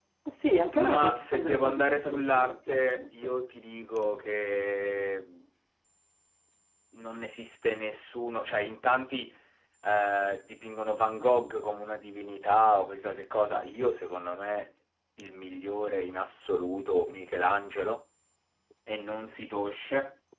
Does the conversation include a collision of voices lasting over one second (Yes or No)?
Yes